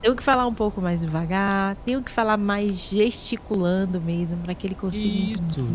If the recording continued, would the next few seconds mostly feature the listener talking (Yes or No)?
Yes